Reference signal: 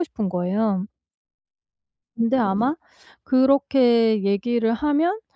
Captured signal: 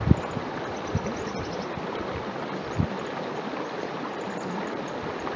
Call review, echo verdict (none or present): none